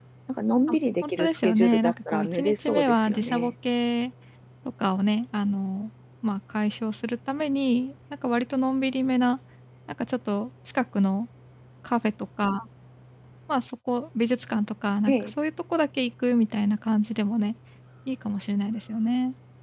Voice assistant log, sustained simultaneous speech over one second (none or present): present